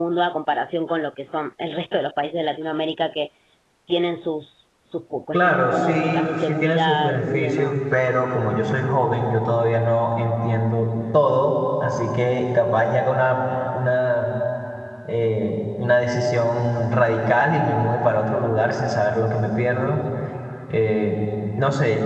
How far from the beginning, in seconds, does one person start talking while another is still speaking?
5.3 s

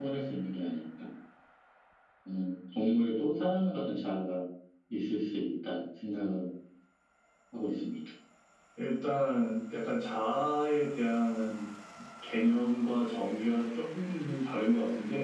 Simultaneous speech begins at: none

